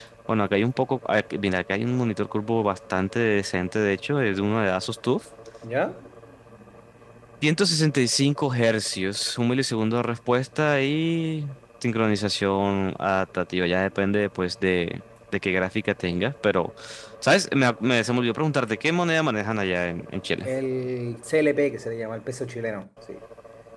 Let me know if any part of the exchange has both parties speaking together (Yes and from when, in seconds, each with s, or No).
No